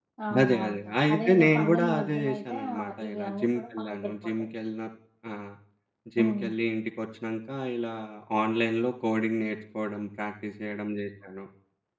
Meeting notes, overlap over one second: present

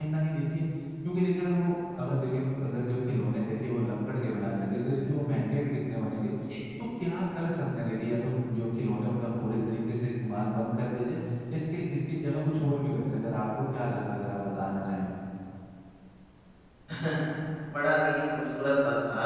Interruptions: none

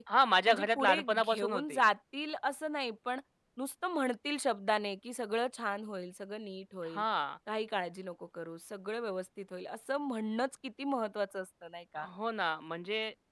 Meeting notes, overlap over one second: present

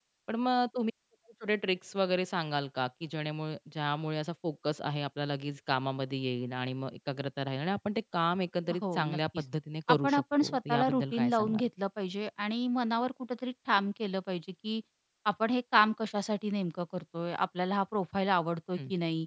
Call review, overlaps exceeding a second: present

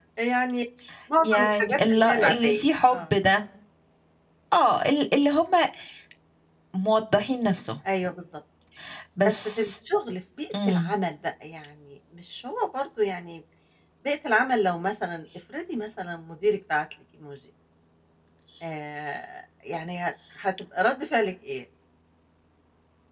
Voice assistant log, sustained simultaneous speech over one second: present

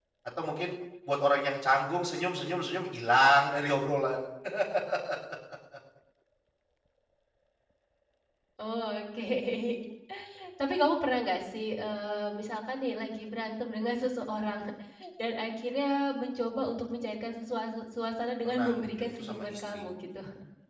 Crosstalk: present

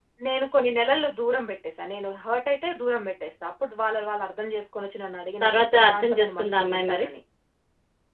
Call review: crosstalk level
present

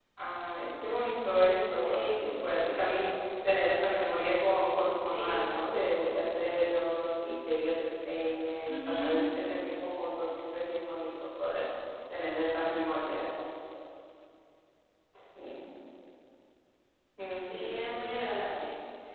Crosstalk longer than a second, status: none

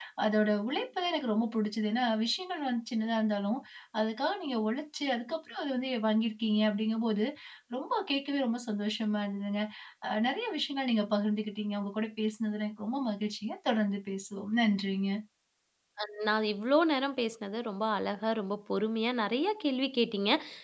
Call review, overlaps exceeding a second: none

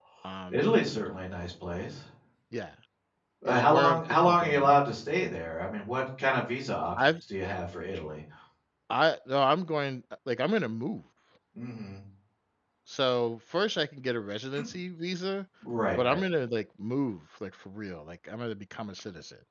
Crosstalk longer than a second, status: present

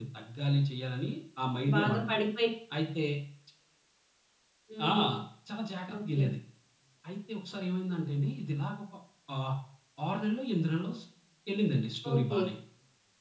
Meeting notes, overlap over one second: none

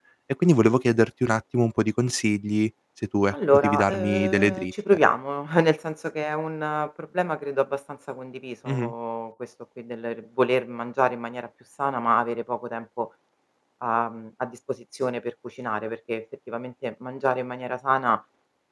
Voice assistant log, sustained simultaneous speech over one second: present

